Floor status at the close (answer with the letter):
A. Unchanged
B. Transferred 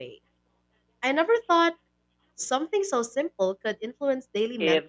B